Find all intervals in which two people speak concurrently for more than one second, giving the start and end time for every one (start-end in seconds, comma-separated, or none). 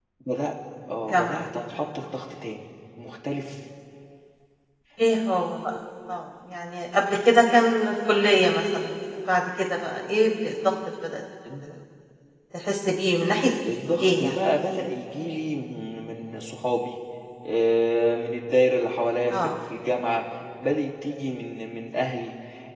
none